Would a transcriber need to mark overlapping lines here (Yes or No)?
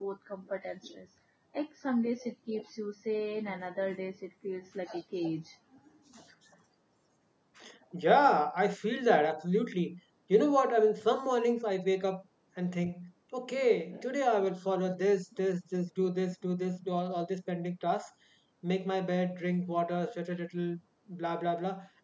No